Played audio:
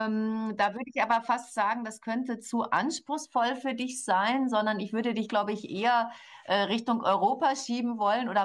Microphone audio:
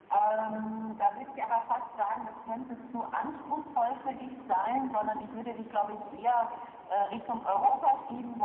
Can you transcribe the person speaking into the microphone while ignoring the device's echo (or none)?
none